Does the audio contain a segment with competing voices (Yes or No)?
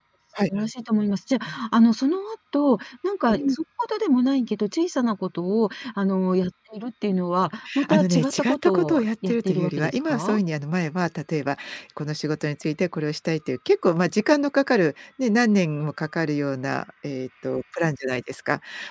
Yes